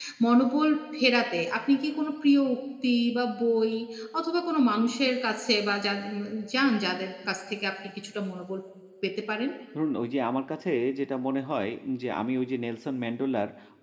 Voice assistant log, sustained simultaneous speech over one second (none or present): none